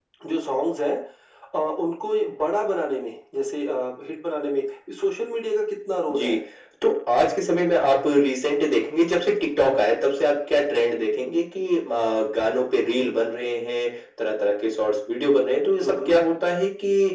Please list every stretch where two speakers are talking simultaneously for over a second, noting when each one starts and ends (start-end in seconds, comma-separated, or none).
none